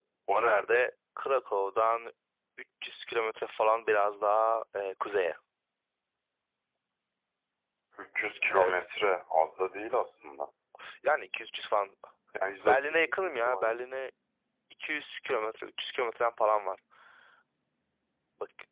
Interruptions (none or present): present